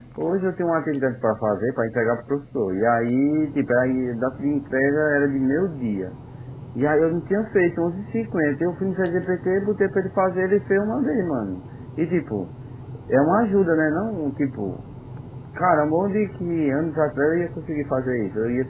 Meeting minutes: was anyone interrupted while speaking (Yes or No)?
No